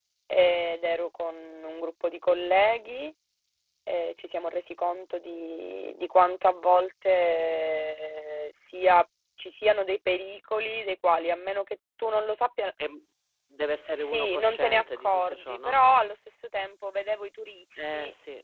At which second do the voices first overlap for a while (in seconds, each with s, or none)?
14.0 s